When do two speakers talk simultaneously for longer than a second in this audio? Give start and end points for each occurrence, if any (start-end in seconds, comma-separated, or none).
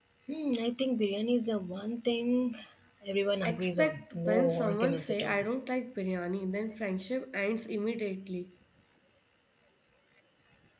3.4-5.4